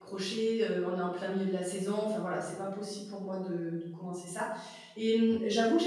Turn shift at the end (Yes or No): No